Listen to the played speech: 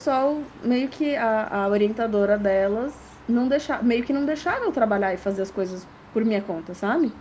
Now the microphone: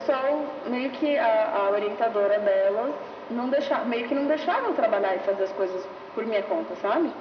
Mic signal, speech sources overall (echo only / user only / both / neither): echo only